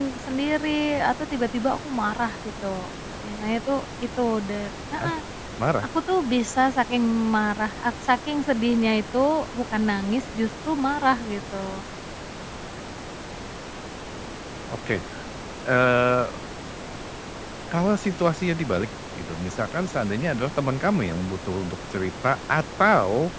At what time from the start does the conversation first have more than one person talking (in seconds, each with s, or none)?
none